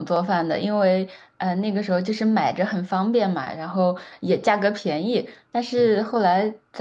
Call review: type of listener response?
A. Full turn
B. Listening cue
B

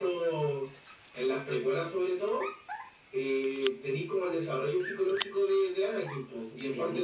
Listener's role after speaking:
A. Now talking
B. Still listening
B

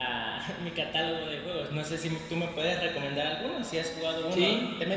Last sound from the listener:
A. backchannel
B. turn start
B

